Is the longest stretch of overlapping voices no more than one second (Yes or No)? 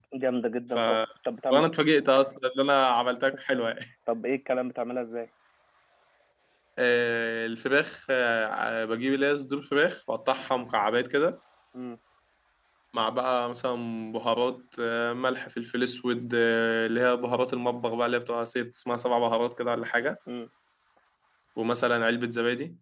Yes